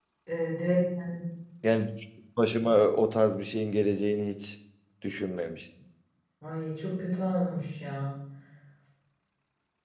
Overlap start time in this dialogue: none

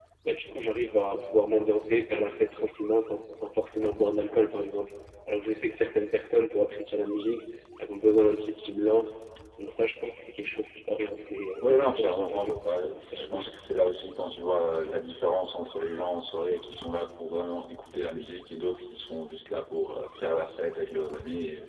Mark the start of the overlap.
11.6 s

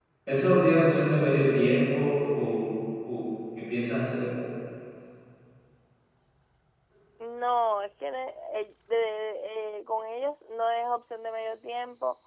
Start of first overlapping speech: none

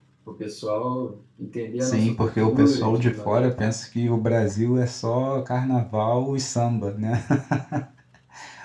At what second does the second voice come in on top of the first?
1.8 s

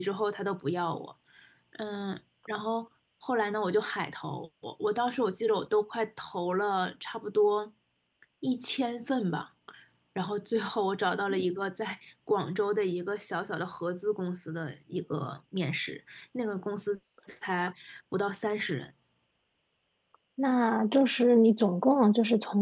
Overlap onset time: none

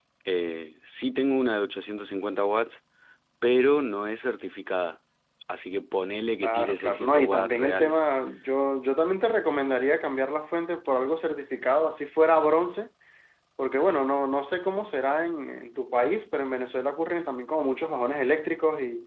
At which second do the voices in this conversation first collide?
6.4 s

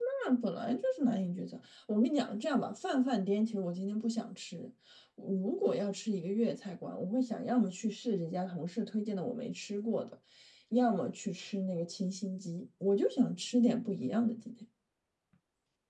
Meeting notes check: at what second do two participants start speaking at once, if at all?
none

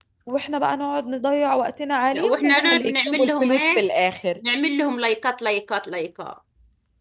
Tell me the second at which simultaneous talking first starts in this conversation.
2.1 s

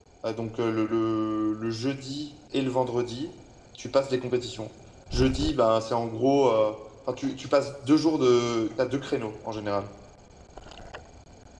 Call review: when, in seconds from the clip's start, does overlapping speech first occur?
none

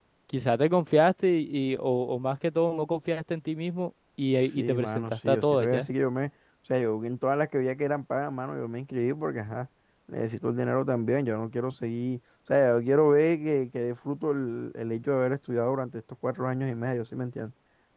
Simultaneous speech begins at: 4.4 s

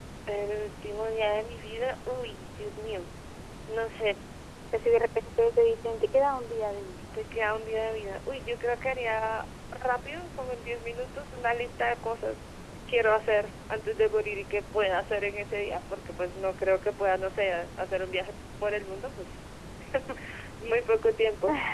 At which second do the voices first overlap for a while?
none

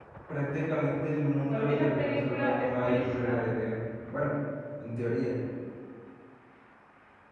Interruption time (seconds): 1.4 s

